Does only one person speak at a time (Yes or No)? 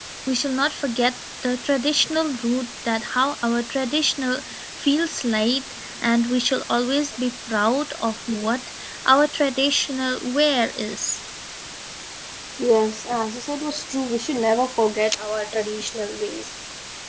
Yes